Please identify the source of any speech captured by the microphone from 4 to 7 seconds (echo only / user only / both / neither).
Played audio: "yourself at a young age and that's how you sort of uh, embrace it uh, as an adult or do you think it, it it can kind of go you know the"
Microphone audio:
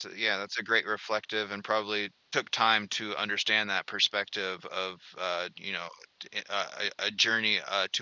user only